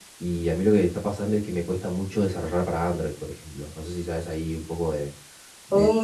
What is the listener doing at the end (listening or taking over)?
taking over